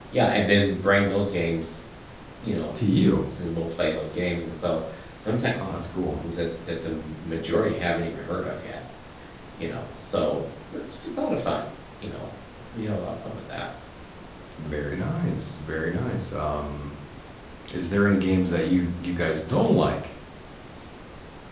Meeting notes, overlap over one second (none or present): none